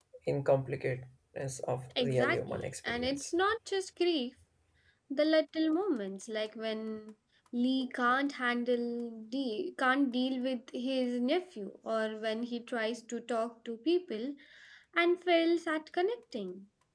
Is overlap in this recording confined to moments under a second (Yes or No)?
No